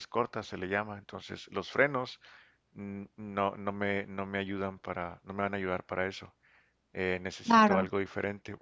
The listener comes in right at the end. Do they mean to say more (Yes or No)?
No